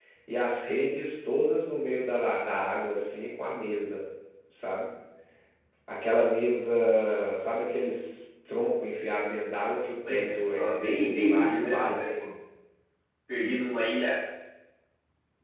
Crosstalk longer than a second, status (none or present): present